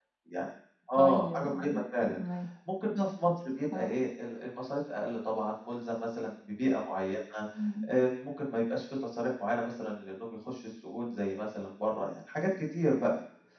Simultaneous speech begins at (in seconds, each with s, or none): 0.9 s